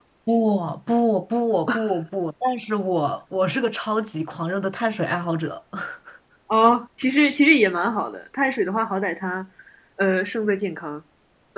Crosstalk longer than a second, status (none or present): none